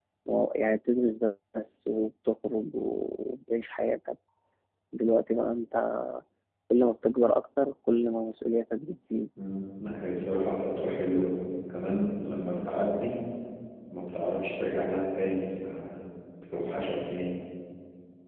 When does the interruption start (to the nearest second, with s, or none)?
none